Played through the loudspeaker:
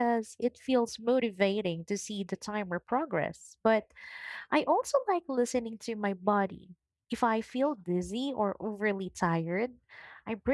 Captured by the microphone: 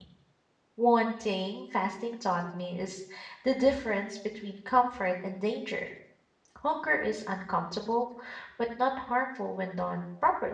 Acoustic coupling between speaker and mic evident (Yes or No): No